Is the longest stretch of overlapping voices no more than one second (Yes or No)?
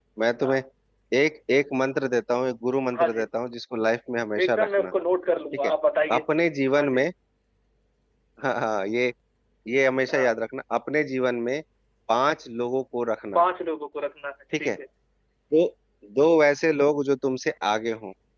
Yes